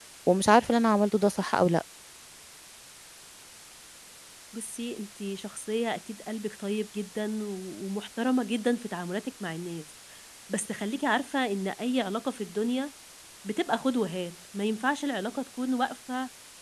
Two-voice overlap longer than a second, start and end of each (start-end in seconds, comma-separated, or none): none